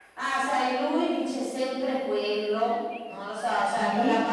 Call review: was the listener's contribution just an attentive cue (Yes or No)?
Yes